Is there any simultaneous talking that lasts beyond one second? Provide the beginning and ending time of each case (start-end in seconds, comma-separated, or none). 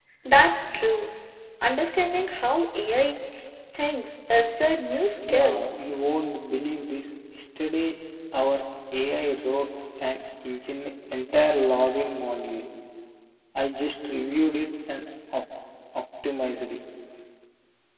none